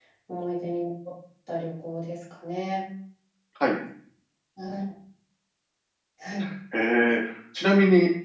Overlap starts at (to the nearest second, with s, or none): none